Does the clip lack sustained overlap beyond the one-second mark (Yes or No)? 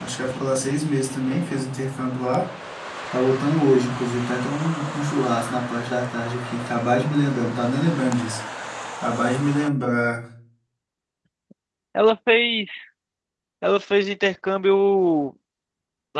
Yes